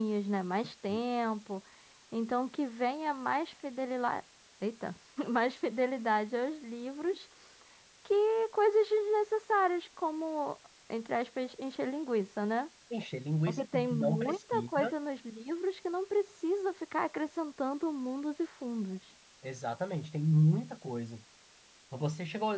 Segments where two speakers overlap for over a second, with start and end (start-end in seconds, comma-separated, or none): 13.5-14.9